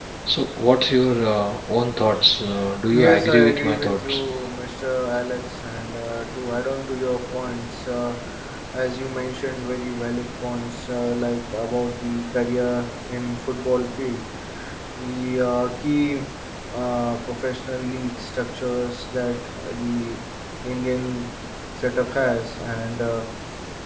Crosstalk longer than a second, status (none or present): present